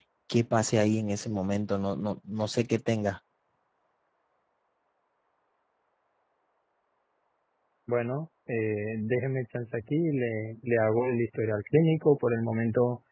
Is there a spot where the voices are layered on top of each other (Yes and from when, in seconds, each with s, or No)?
No